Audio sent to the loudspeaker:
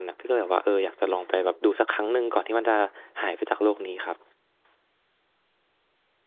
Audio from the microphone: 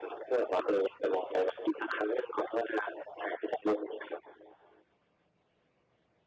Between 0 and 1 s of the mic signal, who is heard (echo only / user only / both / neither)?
echo only